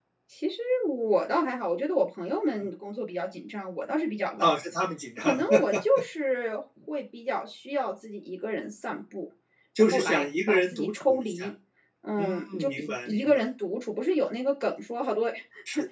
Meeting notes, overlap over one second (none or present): present